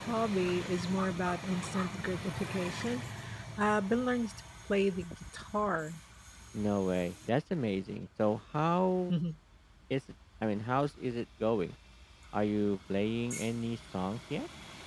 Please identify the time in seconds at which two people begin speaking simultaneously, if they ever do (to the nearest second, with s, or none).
none